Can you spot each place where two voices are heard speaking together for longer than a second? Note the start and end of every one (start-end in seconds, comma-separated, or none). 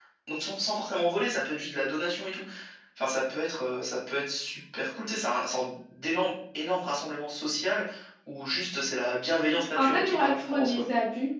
9.5-10.8